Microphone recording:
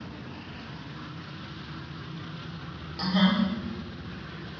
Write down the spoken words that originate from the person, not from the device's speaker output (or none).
mhm.